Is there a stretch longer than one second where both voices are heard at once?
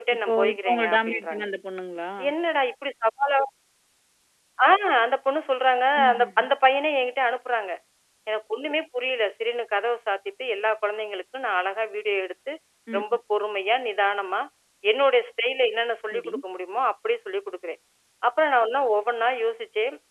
Yes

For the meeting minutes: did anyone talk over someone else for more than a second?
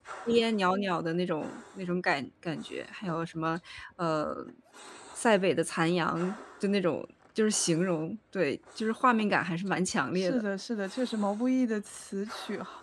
No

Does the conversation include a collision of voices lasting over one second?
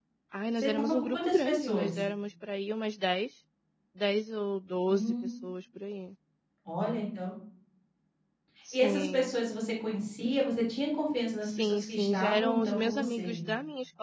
Yes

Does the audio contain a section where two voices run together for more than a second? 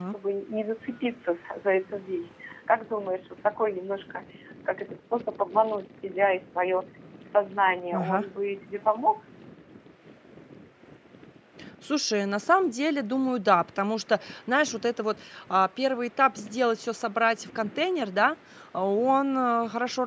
No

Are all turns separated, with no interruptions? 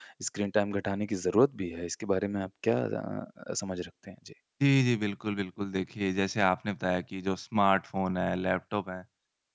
Yes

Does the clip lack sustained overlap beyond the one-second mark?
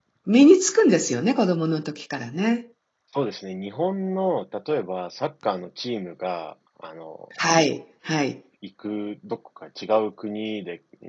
Yes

